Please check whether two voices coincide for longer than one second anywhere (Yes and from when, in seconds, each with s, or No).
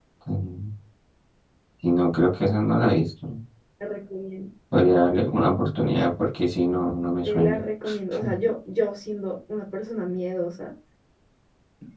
No